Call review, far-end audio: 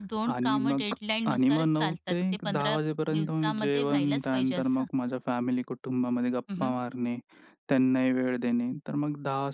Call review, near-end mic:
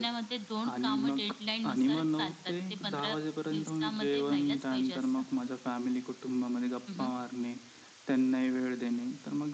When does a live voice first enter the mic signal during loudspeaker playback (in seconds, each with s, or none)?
none